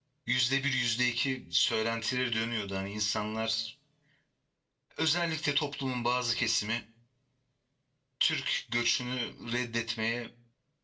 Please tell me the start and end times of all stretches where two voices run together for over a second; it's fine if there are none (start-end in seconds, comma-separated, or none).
none